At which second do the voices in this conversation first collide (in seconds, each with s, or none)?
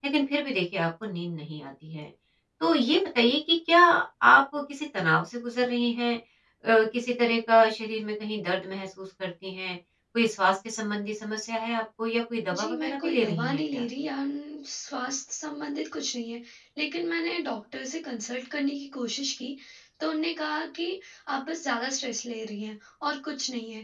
12.5 s